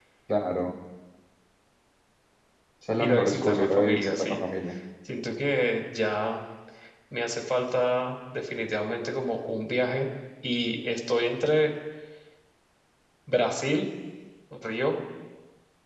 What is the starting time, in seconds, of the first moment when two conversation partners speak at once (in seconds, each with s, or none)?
3.0 s